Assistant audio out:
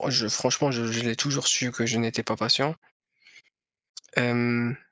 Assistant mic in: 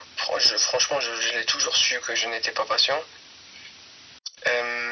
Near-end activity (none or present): none